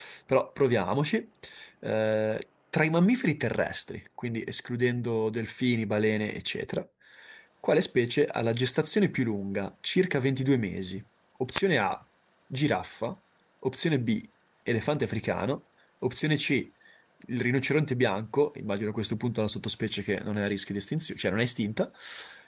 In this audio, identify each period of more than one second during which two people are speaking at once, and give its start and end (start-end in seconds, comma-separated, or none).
none